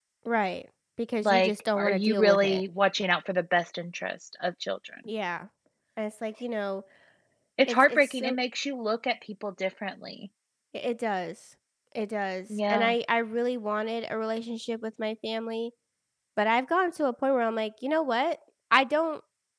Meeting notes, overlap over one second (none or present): present